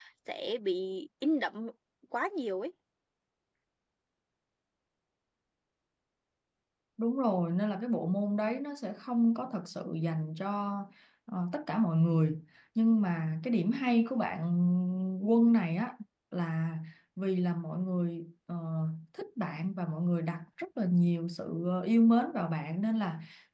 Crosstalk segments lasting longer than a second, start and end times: none

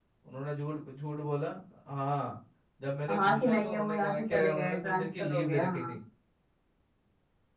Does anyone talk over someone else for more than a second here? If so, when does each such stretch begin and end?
3.1-5.9

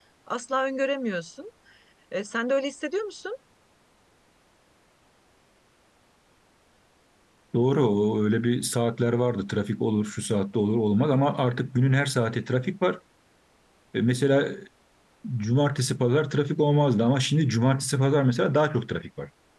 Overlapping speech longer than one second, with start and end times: none

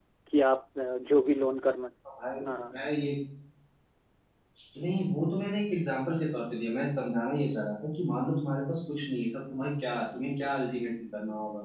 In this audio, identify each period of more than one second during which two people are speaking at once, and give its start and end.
none

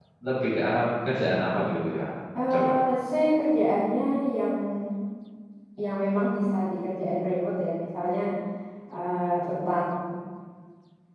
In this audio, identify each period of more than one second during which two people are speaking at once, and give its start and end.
none

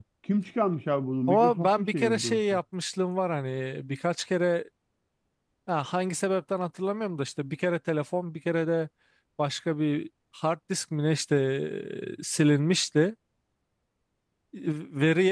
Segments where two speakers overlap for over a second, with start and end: 1.3-2.6

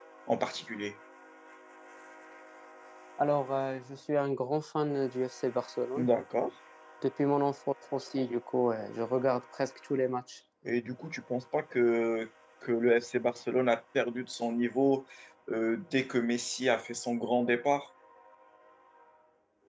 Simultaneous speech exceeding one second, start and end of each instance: none

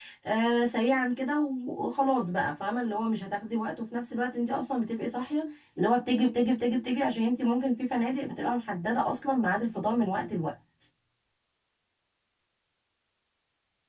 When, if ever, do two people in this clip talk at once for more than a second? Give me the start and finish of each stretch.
none

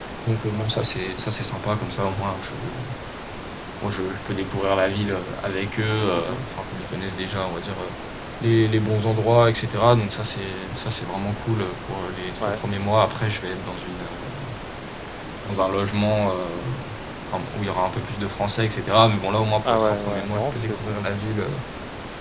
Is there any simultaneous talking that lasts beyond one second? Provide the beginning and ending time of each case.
19.6-21.1

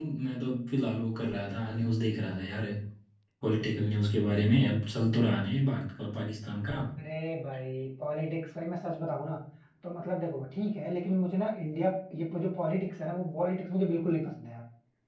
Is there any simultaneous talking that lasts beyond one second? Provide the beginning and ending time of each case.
none

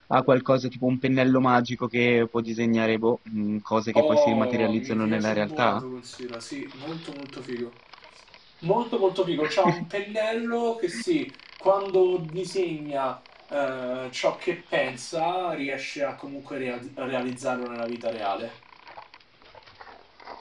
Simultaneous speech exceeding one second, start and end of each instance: 4.0-5.8

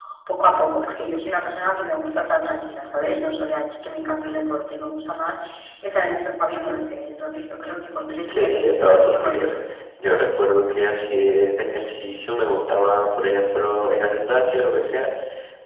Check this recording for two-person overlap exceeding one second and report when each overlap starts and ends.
8.3-9.5

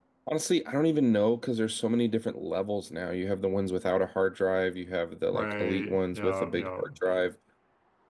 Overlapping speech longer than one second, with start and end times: 5.3-6.9

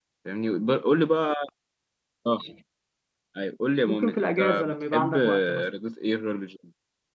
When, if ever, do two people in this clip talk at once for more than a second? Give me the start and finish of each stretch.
3.8-5.7

